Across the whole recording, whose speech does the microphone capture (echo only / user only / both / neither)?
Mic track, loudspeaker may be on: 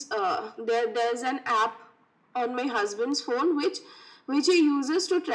echo only